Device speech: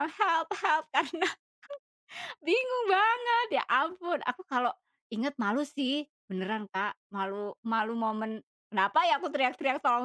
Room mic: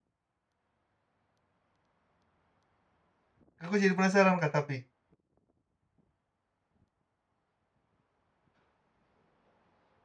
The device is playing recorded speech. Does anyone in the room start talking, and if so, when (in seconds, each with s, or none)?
3.6 s